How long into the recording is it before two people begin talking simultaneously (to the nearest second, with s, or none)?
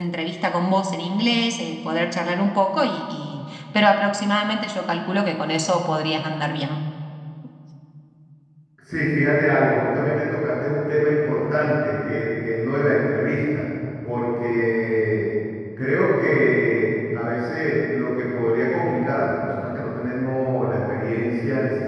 none